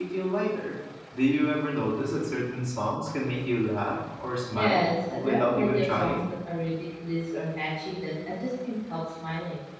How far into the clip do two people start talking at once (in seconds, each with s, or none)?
4.5 s